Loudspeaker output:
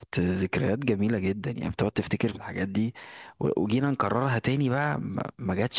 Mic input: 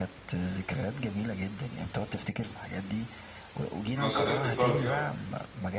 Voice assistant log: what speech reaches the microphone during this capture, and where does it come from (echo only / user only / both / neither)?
both